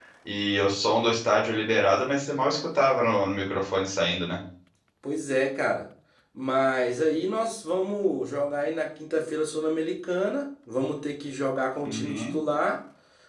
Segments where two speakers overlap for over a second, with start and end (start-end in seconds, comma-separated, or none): none